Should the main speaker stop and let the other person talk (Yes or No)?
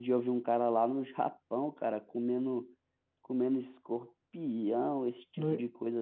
No